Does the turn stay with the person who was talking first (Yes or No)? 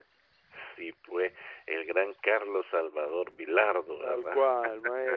No